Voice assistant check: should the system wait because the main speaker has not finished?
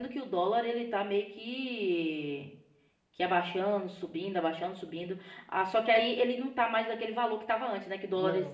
Yes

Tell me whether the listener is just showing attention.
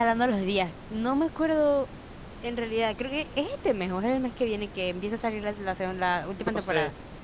No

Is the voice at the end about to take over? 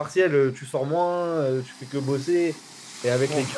No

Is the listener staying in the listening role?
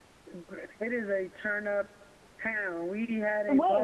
Yes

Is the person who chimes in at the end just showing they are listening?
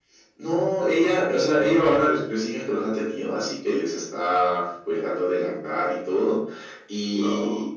Yes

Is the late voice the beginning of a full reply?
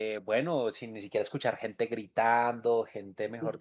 No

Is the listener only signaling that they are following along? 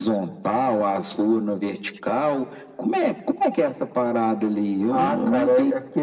No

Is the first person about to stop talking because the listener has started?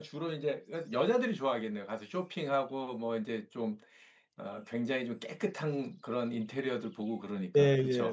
Yes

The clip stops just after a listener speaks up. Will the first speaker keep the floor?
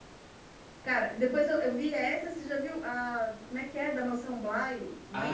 No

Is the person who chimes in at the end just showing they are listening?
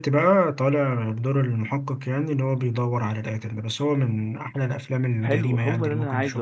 No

